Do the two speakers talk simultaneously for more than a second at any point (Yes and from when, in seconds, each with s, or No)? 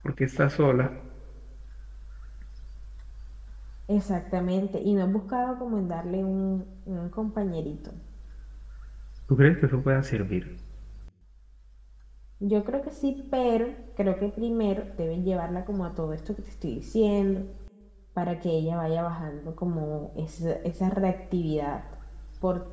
No